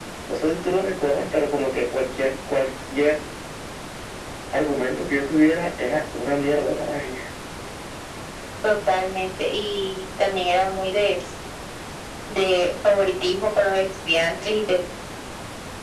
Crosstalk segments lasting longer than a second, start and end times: none

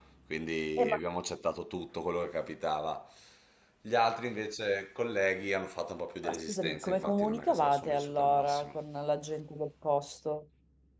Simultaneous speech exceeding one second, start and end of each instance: 6.2-8.8

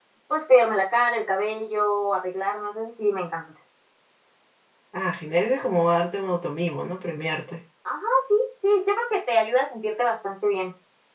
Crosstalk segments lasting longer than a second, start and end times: none

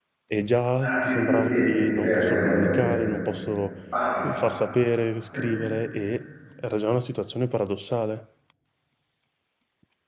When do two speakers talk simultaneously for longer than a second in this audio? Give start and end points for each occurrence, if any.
0.8-2.8

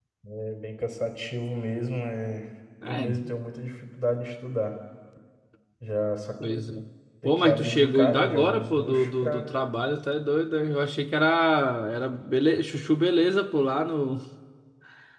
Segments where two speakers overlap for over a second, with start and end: 7.2-9.4

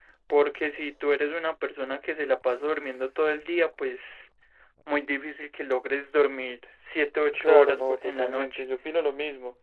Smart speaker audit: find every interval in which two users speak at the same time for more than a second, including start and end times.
7.3-8.6

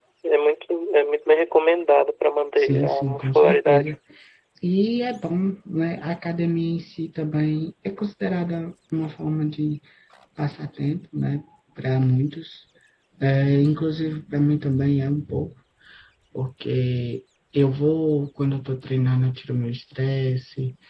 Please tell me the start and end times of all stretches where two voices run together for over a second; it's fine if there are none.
2.6-3.9

